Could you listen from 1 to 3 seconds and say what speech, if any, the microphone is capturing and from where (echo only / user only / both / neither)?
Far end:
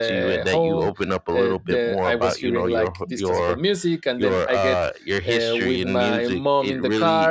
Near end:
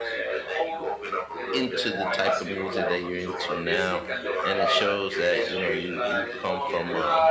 both